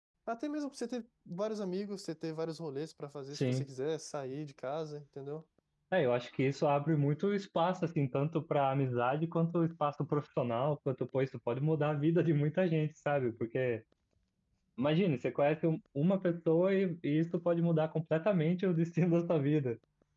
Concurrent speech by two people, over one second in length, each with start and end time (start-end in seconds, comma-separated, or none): none